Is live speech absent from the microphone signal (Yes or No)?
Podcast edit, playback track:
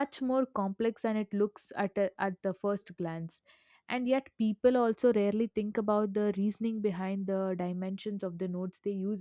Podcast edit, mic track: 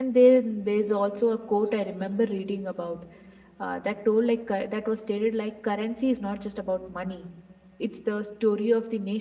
No